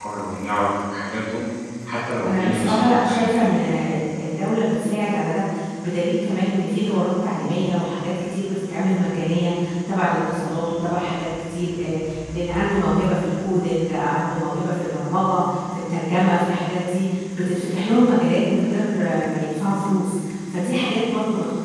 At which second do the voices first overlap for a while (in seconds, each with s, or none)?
2.2 s